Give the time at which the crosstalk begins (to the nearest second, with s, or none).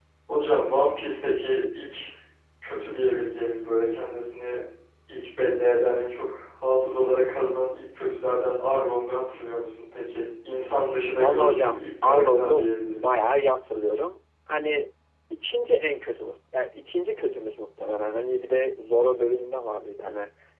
11 s